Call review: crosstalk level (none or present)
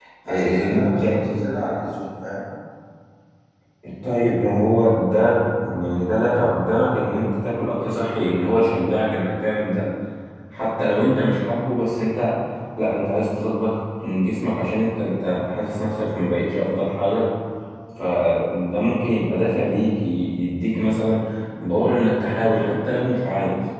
present